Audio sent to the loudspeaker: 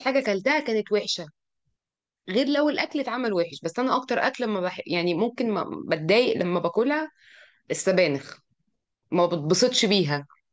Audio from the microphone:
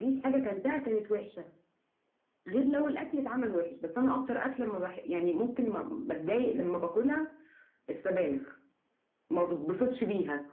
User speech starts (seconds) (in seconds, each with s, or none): none